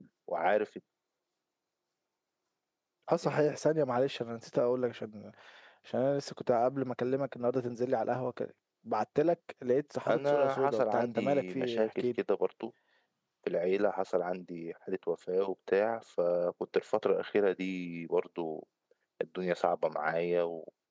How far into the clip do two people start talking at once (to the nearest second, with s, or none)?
10 s